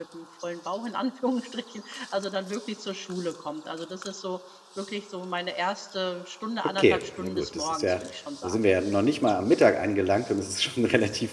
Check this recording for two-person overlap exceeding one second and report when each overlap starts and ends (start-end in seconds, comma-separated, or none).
6.8-8.0